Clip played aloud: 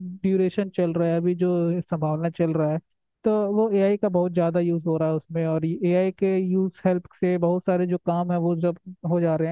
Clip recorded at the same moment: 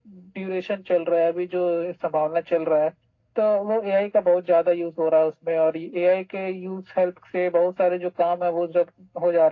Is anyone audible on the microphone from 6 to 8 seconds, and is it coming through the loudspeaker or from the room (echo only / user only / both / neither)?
echo only